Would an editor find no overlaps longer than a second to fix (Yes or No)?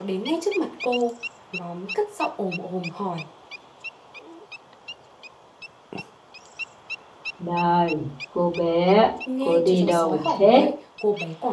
No